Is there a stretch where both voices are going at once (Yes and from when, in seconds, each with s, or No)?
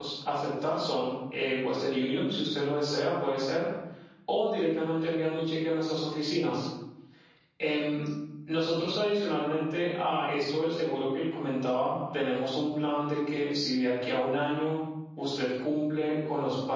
No